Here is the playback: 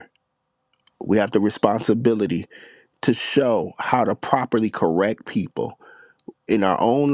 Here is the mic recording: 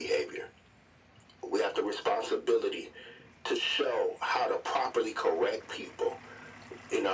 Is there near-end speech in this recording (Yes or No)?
No